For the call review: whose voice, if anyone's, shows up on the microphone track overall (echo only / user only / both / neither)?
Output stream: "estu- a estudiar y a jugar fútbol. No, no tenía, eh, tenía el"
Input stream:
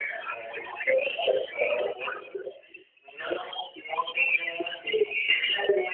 echo only